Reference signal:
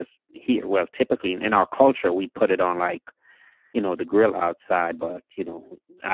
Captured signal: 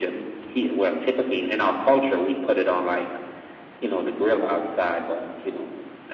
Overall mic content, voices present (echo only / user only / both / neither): echo only